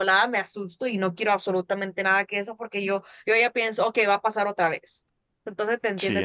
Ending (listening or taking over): listening